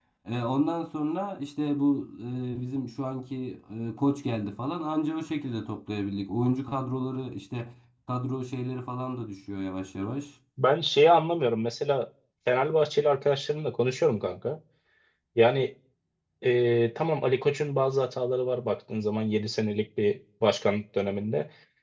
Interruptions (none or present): none